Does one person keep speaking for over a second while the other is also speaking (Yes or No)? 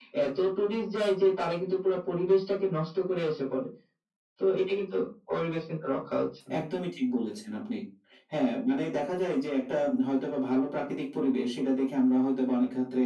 No